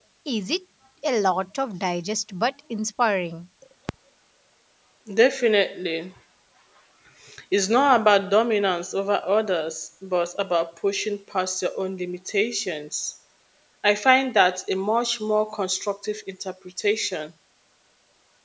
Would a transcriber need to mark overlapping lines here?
No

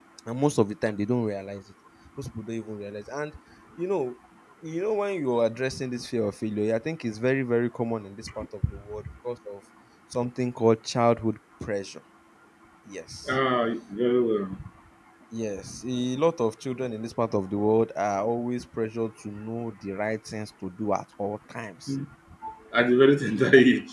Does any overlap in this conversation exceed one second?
No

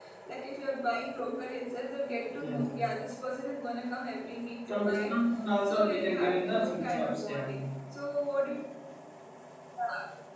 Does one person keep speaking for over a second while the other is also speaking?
Yes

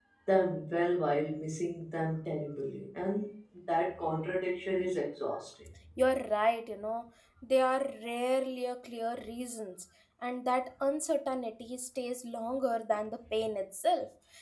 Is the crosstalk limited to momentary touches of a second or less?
Yes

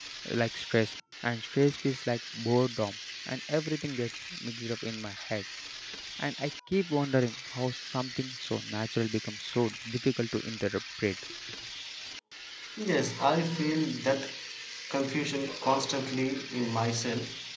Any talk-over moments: No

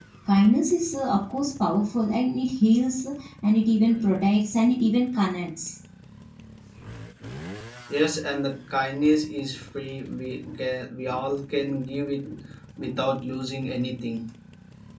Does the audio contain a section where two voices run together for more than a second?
No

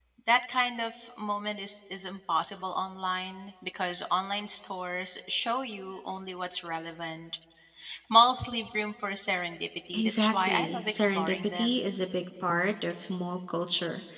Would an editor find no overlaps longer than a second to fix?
No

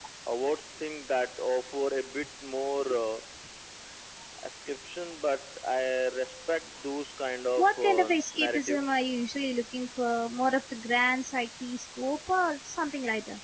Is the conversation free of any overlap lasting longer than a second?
No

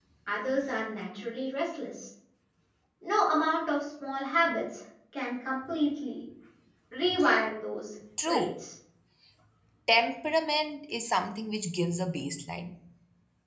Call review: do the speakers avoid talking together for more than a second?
Yes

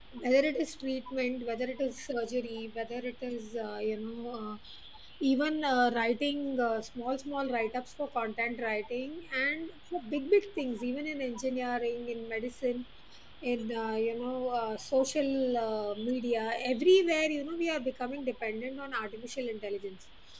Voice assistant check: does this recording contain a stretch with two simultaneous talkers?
No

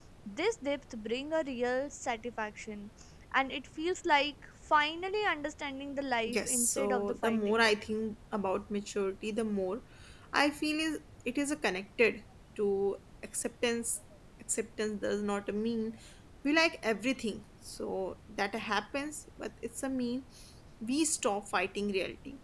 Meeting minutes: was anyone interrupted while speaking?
Yes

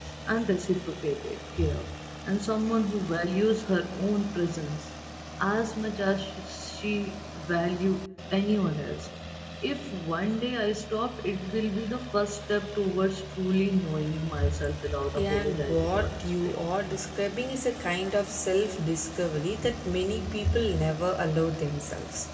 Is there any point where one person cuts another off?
Yes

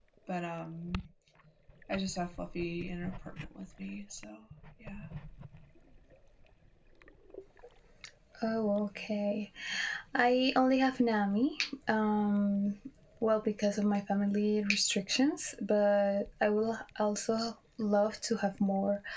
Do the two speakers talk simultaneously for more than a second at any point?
No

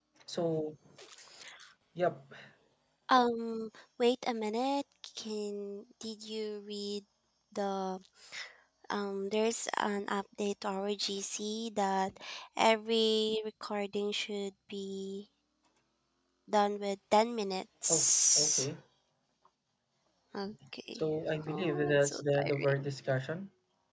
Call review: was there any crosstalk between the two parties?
Yes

